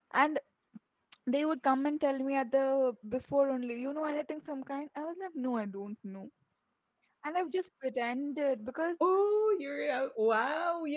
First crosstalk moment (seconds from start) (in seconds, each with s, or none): none